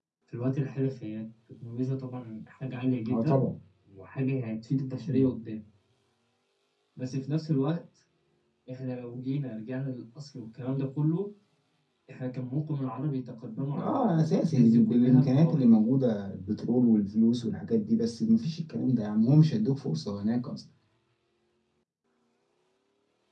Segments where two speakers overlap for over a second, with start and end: 13.8-15.7

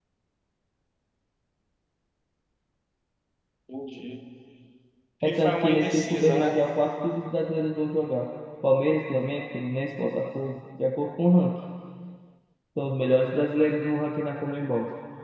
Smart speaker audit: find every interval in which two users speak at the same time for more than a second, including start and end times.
5.2-6.6

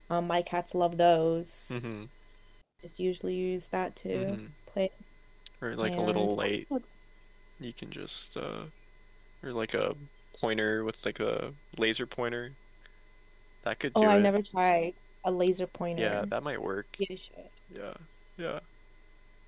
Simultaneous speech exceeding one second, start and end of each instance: none

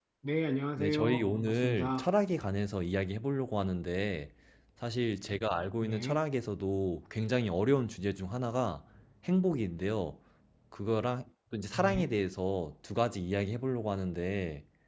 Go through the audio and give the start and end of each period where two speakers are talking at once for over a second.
0.8-2.2

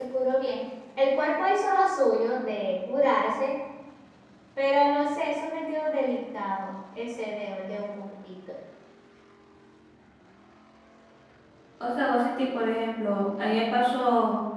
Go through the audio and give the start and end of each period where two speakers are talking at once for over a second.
none

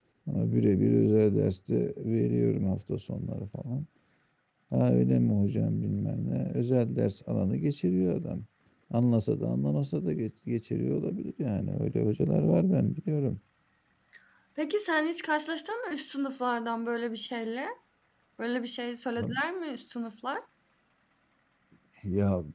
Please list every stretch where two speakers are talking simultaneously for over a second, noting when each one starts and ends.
none

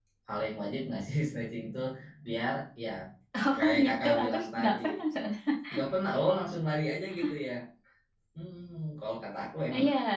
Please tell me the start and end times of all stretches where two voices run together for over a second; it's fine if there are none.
3.6-5.0

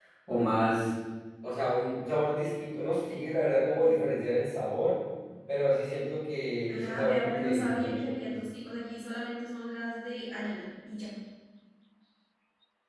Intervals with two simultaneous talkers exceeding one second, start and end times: 6.7-8.3

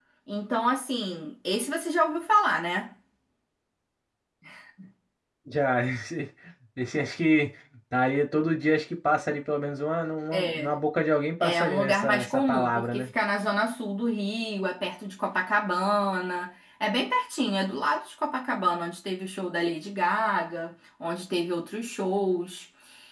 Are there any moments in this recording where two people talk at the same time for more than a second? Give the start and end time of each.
11.4-13.1

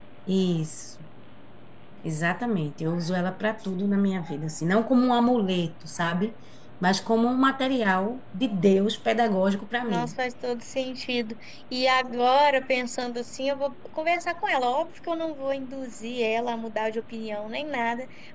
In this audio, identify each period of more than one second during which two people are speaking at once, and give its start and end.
none

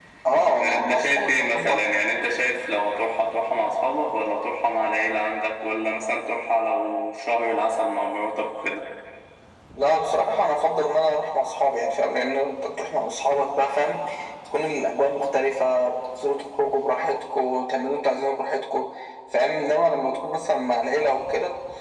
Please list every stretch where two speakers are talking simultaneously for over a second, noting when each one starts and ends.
0.6-1.9

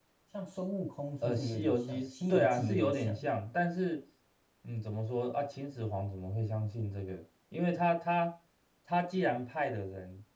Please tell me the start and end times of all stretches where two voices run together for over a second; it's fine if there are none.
1.2-3.3

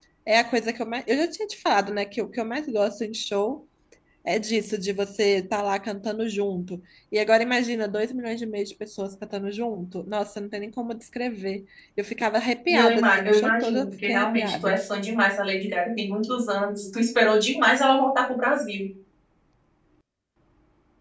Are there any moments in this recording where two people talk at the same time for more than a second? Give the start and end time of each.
12.7-14.8

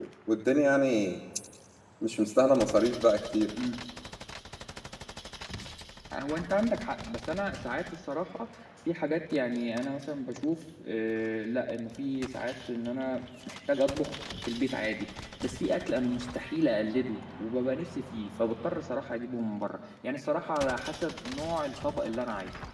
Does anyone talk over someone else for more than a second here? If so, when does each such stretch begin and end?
none

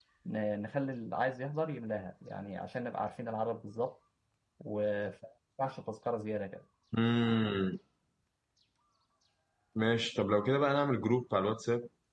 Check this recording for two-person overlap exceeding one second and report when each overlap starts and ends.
none

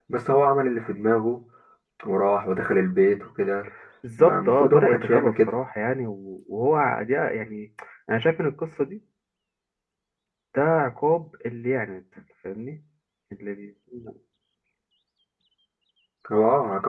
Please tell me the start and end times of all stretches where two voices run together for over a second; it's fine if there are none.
4.2-5.5

